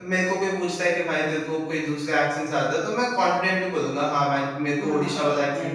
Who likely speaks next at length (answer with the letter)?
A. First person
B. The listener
B